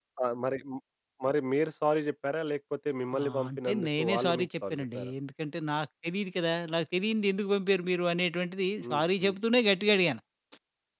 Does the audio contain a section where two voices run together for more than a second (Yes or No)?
Yes